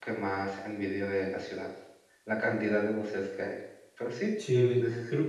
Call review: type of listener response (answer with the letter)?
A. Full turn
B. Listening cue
A